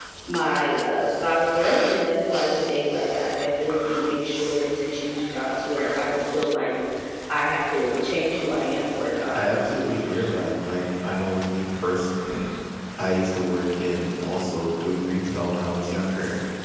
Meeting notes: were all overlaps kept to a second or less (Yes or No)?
Yes